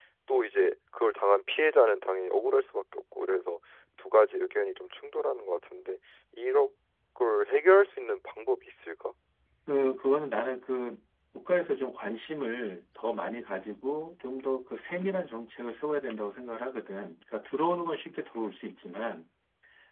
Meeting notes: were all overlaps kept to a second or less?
Yes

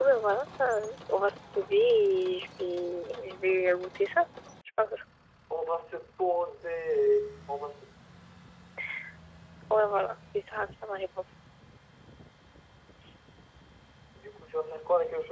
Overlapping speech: No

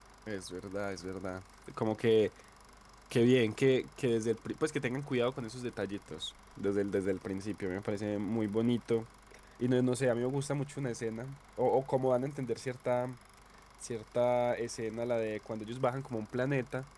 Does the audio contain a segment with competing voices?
No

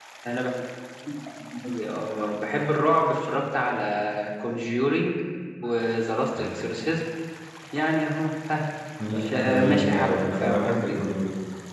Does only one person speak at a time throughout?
No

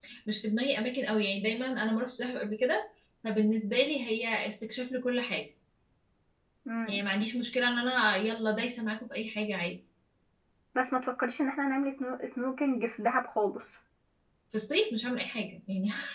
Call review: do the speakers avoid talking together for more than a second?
Yes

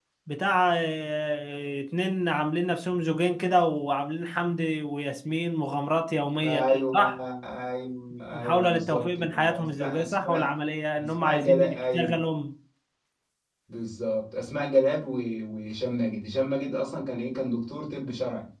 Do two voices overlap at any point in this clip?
Yes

